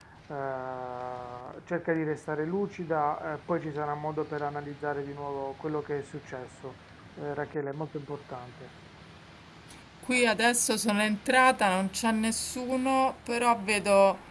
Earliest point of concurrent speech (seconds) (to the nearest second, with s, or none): none